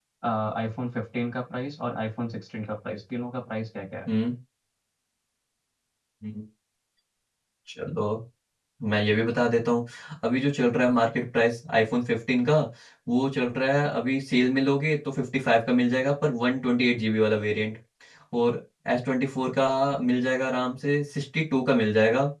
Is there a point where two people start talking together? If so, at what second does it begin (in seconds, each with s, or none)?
none